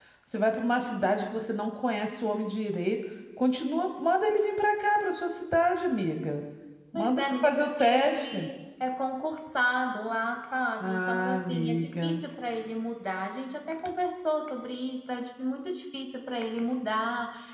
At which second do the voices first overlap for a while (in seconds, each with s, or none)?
6.9 s